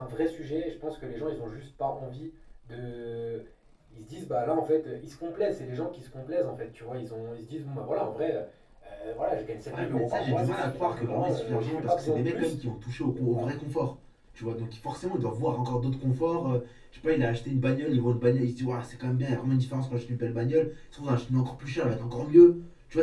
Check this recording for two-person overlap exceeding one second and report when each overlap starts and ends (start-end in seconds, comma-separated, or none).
9.7-12.5